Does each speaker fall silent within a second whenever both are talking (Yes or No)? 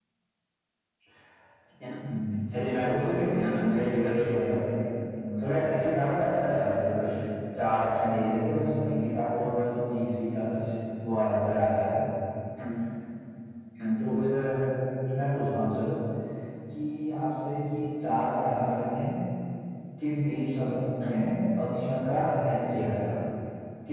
No